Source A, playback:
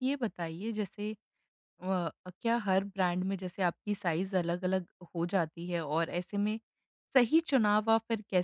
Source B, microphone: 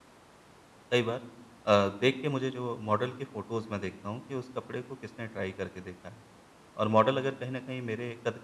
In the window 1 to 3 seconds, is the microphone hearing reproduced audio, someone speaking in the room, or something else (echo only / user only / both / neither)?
user only